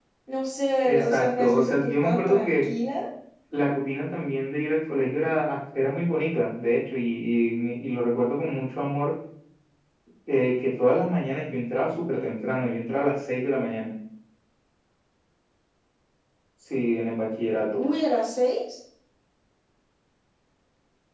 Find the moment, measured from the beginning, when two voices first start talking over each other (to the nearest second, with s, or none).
1 s